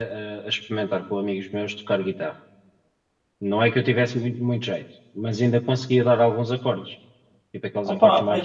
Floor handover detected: Yes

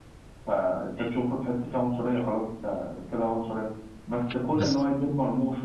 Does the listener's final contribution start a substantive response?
No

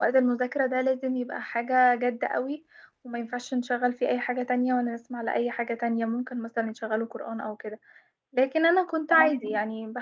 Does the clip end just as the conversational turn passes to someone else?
No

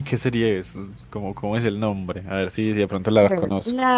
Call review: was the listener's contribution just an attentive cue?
No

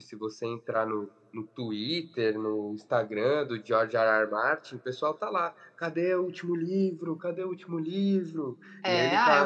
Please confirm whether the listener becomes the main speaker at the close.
Yes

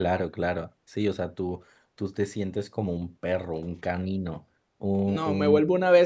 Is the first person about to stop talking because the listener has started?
Yes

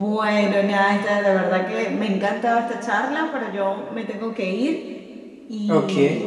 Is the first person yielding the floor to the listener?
No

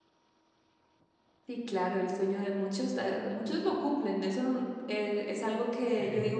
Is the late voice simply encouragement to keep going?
Yes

